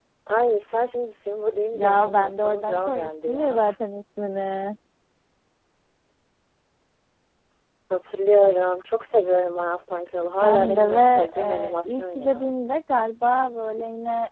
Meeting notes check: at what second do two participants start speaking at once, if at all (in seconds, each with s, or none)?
1.7 s